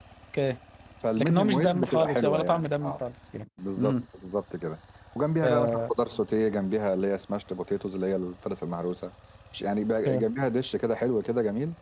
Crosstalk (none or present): present